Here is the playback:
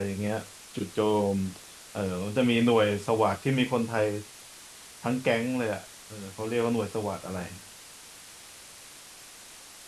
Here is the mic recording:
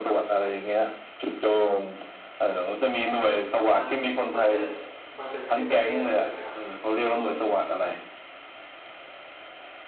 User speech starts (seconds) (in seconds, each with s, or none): 3.7 s